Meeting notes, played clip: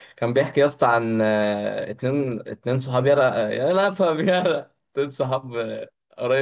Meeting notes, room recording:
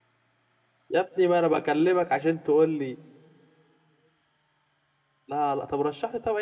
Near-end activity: present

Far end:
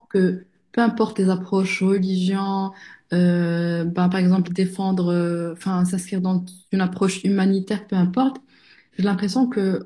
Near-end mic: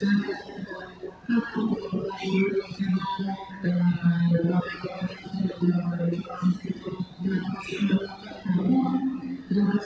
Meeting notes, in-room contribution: none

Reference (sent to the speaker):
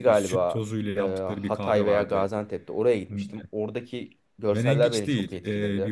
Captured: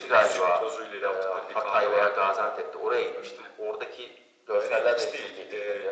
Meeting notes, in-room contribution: none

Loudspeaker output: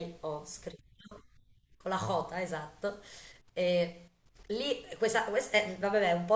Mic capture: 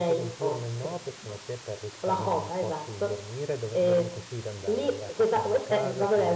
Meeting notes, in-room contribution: present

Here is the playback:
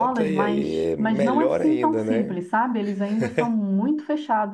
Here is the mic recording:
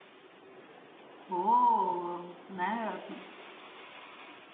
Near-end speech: present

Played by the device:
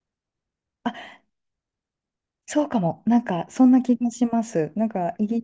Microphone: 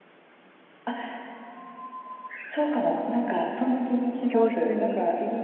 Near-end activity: present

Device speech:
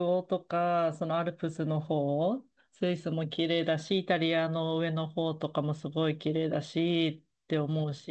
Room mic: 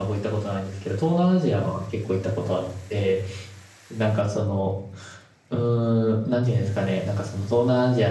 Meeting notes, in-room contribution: present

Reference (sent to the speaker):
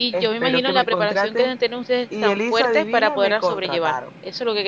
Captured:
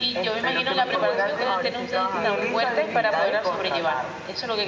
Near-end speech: present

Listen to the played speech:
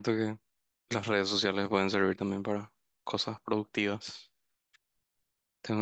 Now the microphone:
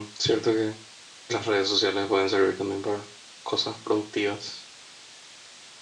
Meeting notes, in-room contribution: none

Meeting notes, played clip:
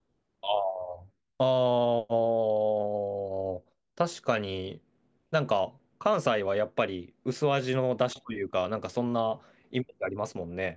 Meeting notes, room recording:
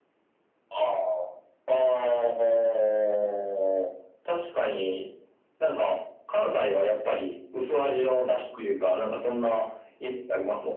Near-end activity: none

